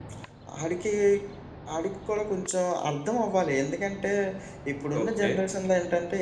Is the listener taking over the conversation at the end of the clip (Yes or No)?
No